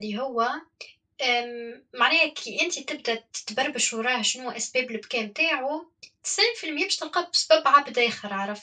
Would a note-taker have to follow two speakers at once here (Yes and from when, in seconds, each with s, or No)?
No